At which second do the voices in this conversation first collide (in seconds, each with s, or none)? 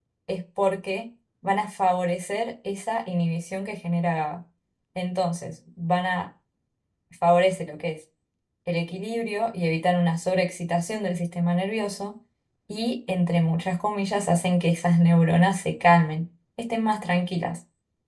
none